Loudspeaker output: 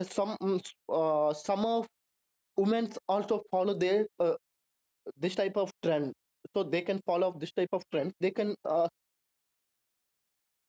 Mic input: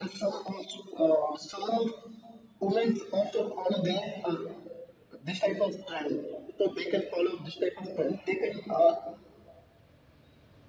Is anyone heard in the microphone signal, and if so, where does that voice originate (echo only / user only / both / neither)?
echo only